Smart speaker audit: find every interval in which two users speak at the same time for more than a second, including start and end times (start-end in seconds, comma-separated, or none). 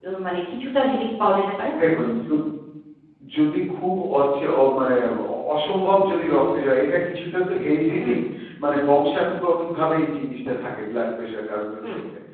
none